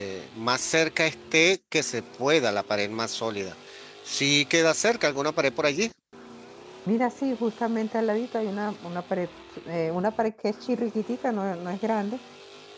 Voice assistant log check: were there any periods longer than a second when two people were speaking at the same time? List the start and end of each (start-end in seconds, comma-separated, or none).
none